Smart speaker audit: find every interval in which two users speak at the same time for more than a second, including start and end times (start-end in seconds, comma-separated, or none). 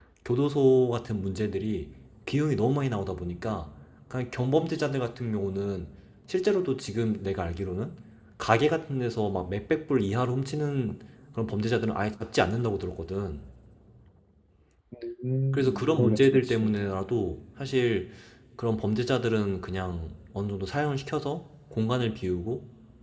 15.5-16.8